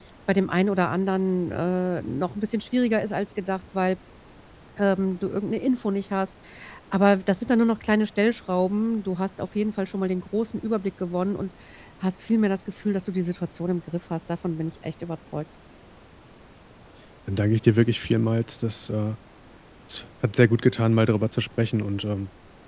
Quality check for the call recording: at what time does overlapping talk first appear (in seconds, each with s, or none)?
none